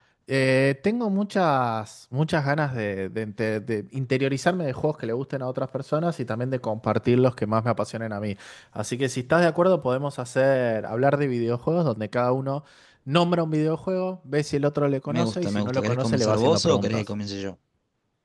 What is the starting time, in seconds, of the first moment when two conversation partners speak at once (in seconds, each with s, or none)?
15.1 s